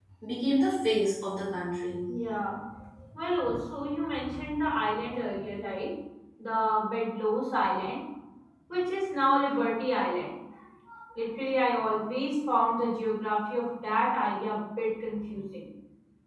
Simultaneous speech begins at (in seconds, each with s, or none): none